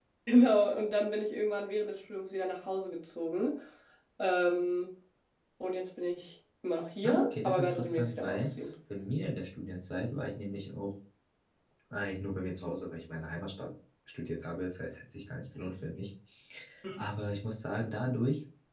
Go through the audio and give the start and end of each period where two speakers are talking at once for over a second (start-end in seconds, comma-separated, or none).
7.0-8.5